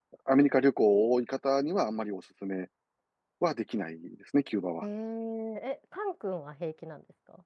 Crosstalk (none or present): none